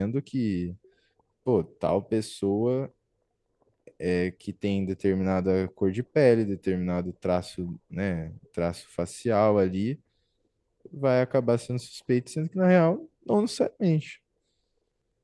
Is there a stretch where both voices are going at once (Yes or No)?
No